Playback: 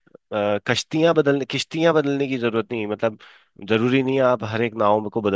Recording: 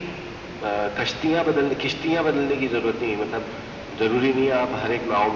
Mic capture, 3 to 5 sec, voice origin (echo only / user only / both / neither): echo only